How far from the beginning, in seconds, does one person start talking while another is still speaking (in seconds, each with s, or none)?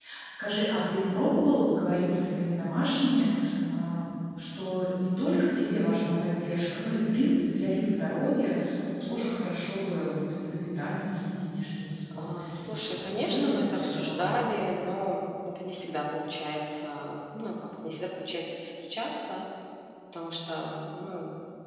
12.1 s